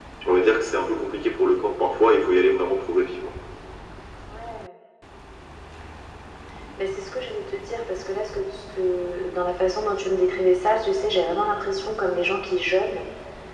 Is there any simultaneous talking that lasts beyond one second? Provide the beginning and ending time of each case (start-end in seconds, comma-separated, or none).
none